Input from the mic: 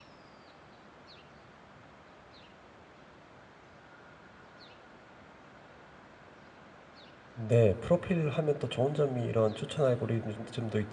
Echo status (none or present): none